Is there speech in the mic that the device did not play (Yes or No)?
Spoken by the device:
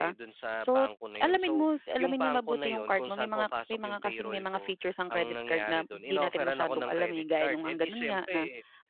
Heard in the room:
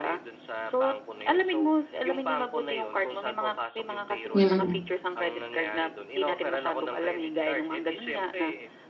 Yes